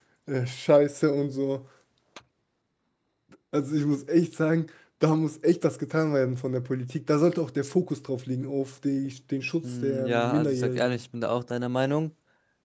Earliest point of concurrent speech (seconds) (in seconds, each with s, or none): 9.6 s